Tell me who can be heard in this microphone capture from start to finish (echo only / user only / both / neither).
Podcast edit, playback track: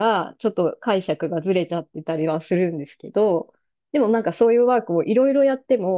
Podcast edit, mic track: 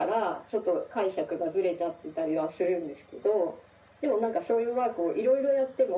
echo only